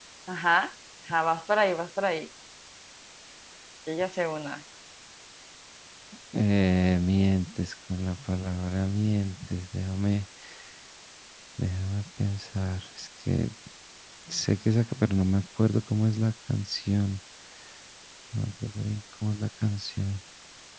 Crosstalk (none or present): none